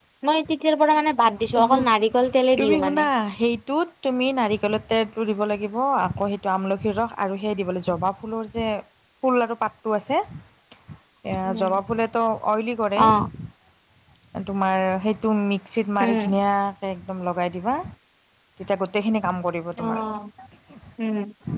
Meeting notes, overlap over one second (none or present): none